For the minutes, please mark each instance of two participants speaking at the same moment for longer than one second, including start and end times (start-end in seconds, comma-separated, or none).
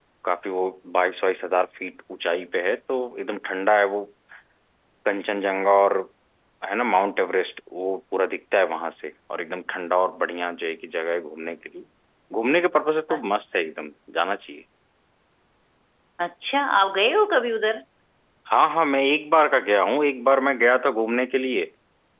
none